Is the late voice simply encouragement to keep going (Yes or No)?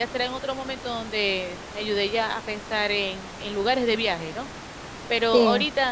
Yes